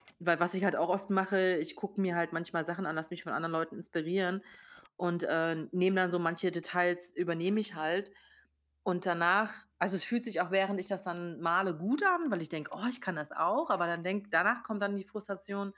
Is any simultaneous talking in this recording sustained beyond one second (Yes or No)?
No